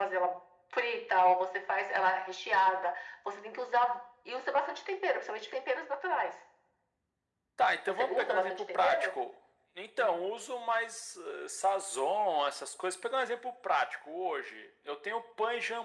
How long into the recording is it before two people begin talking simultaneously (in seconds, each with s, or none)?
7.9 s